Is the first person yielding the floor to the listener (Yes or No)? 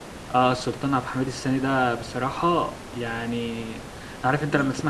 No